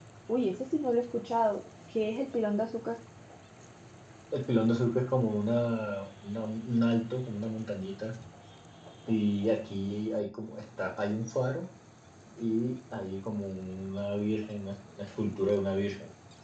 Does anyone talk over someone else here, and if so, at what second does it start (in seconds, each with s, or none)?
none